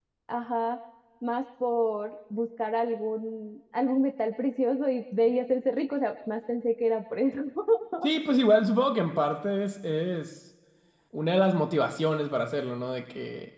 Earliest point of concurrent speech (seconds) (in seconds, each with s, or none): none